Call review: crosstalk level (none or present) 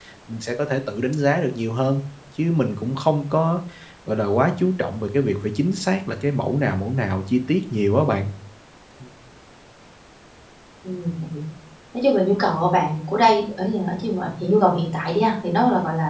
none